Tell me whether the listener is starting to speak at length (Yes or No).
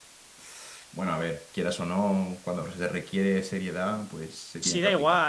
Yes